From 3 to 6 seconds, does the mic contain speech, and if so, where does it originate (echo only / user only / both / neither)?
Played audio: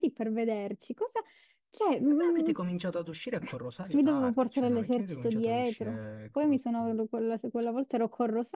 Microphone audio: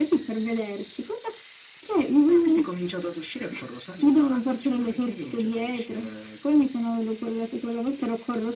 echo only